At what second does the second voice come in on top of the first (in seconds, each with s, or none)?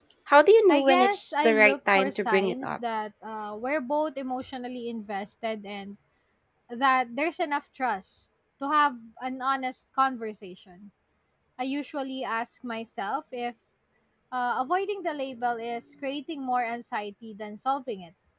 0.7 s